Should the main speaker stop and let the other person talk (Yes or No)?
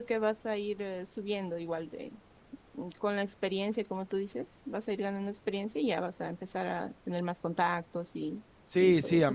Yes